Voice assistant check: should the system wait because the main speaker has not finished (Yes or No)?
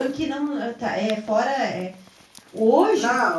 No